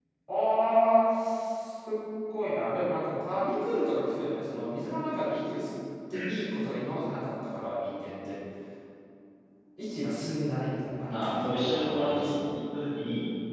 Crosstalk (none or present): present